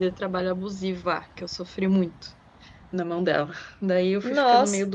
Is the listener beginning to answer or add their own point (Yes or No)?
No